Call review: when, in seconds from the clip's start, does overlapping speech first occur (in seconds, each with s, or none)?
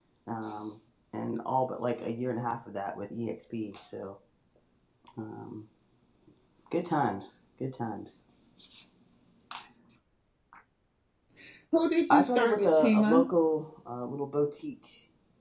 12.1 s